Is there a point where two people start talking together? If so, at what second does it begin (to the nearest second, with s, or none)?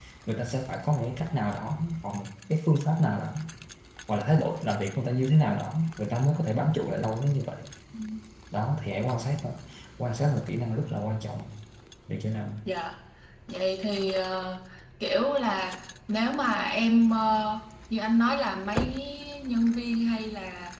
none